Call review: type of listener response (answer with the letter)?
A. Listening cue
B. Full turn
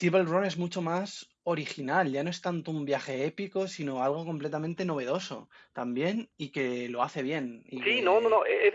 B